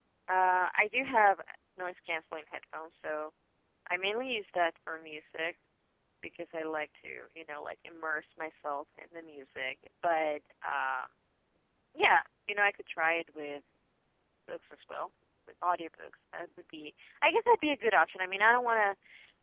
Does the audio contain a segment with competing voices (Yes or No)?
No